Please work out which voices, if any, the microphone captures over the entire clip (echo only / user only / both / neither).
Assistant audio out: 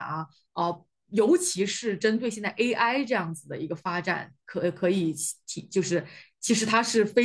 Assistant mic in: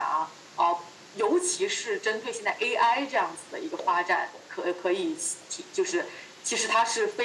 echo only